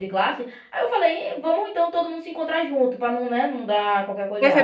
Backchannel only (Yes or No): No